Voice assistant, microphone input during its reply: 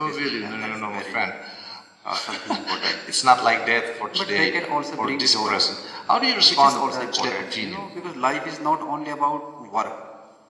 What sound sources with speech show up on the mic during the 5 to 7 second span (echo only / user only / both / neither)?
echo only